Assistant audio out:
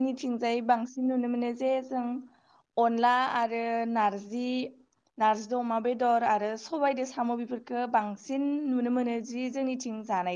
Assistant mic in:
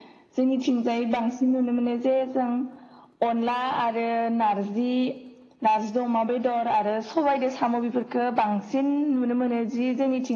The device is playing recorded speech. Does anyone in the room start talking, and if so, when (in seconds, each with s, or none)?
none